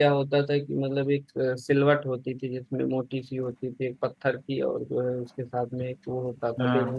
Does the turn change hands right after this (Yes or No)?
No